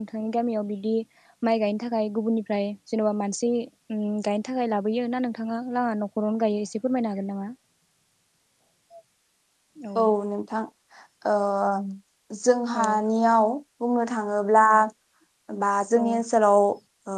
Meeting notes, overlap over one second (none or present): none